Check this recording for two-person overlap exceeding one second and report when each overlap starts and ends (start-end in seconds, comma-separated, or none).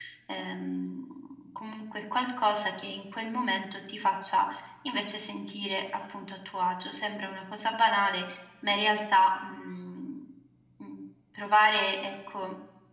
none